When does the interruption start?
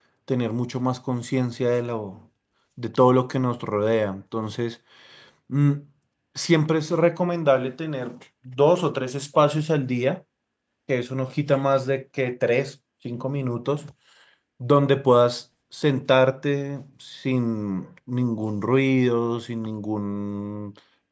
none

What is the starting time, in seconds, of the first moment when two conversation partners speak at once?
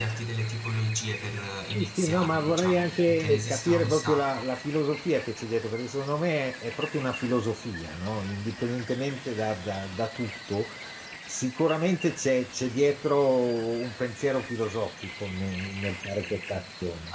1.7 s

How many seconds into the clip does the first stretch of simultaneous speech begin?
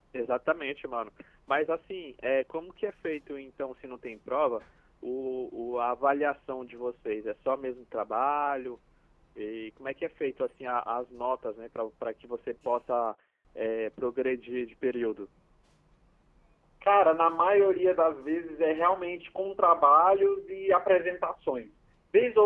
none

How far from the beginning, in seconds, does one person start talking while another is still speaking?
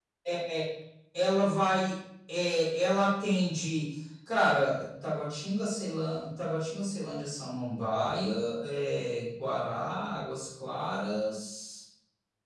none

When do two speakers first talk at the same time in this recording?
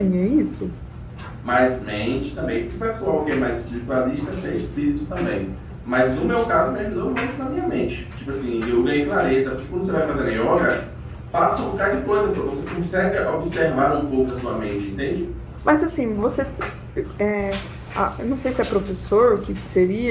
none

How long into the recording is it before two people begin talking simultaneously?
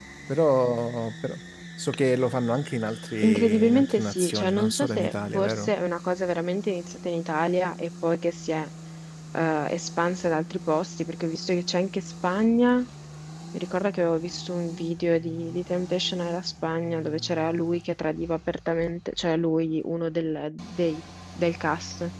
3.2 s

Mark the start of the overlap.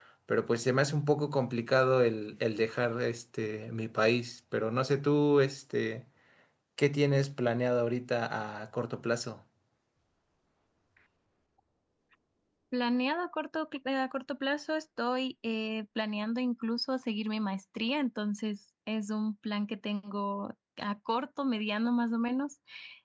none

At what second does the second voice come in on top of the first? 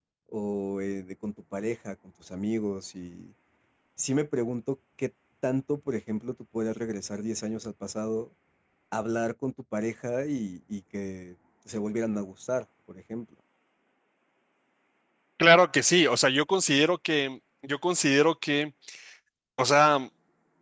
none

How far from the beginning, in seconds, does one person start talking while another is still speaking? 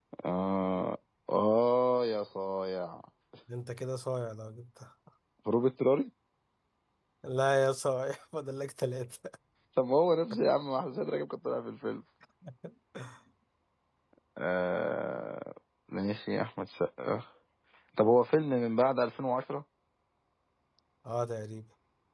none

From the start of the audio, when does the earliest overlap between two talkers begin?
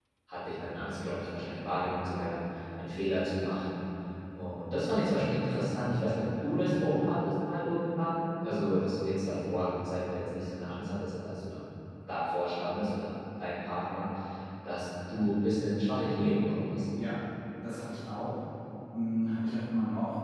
none

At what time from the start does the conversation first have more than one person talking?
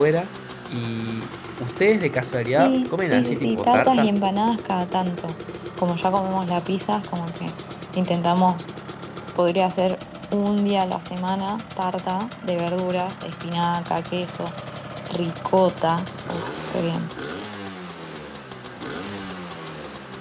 2.6 s

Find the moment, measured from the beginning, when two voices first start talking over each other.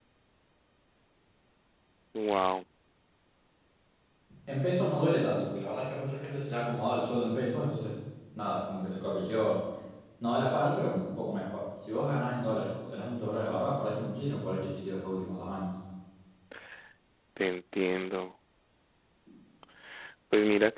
none

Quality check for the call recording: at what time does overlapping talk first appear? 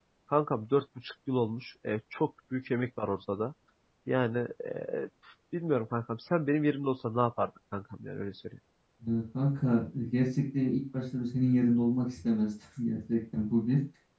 none

